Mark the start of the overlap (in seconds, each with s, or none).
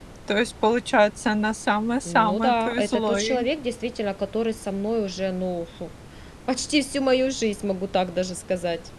2.0 s